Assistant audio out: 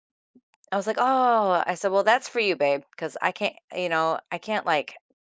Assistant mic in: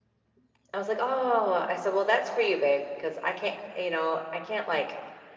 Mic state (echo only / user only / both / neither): echo only